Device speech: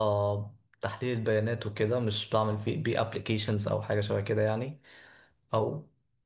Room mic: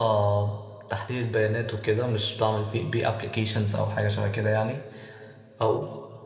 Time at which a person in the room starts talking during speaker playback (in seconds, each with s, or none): none